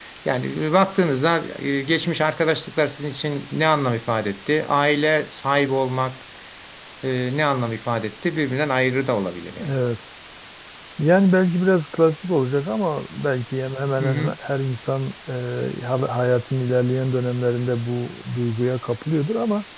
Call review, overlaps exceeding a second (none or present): none